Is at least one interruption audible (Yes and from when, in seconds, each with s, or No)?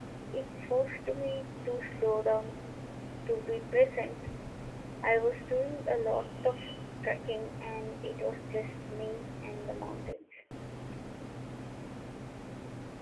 No